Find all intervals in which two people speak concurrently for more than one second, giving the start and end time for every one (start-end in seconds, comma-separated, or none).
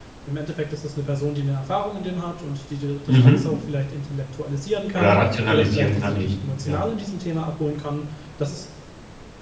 5.0-6.8